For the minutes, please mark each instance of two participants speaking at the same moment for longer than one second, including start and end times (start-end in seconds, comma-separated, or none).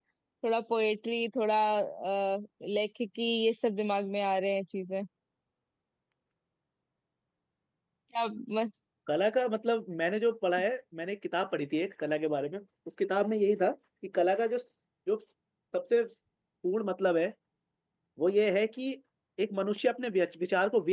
none